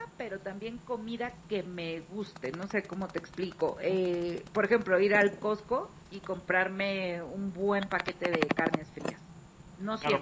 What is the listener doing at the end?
taking over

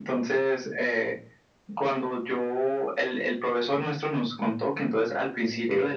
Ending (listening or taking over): listening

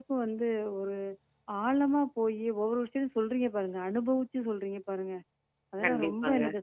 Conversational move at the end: listening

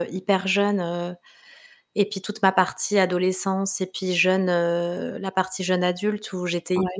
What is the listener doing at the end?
listening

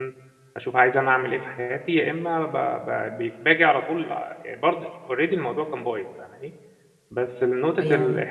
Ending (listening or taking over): listening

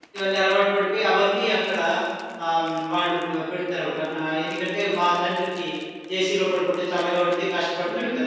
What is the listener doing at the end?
taking over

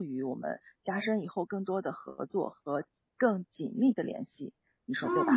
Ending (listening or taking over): taking over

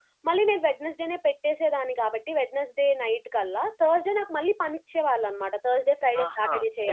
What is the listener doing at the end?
taking over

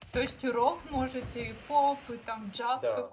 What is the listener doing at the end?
taking over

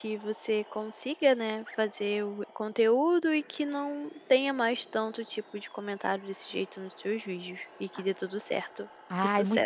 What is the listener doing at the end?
taking over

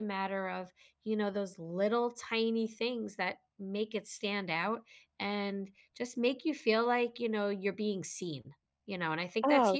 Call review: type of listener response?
taking over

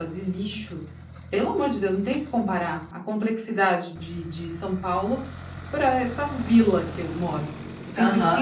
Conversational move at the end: listening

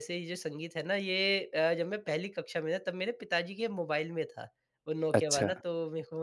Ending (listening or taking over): listening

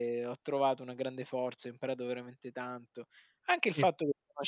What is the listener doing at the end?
listening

